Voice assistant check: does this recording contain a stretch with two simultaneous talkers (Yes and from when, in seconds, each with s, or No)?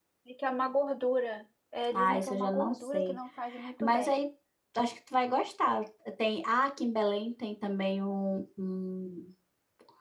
Yes, from 1.9 s